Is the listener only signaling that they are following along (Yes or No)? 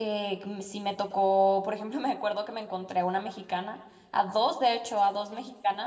Yes